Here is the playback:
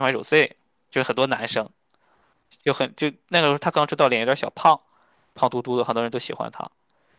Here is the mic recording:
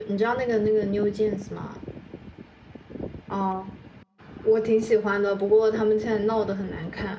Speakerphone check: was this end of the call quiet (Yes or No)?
No